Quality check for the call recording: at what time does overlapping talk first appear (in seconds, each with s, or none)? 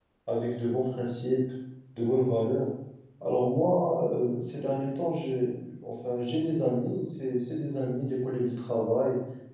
none